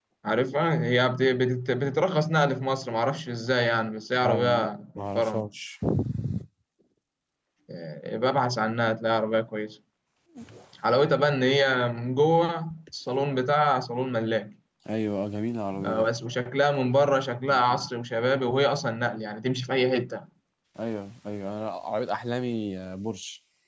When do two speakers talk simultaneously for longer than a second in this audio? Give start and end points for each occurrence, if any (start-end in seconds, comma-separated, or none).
4.1-5.5